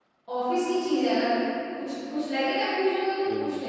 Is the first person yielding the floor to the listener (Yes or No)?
Yes